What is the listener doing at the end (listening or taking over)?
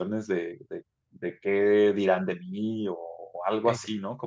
listening